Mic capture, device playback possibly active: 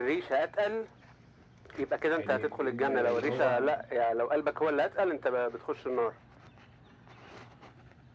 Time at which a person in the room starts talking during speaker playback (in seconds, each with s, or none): 2.2 s